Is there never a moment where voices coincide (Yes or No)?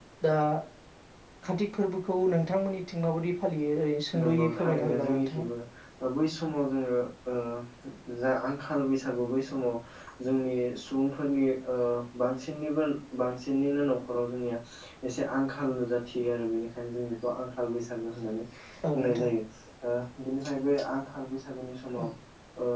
No